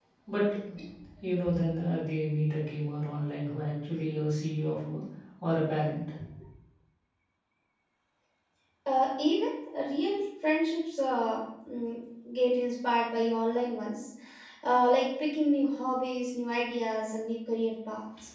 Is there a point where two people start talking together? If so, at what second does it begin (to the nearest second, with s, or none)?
none